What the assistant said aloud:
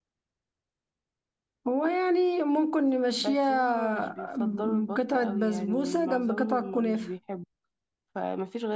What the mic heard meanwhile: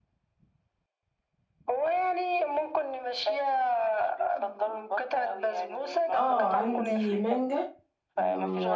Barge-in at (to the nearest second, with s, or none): 6 s